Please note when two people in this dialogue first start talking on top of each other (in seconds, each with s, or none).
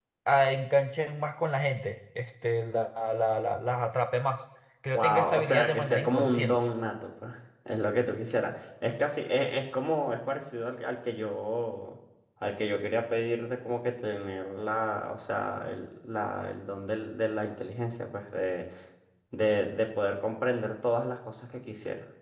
4.9 s